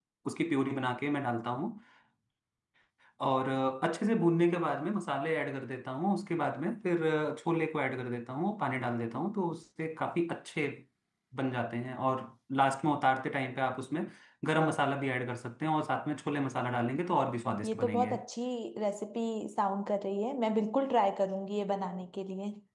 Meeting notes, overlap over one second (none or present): none